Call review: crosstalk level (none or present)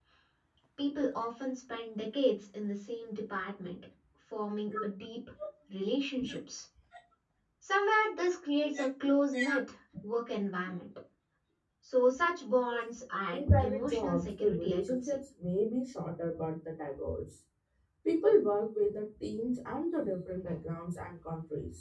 present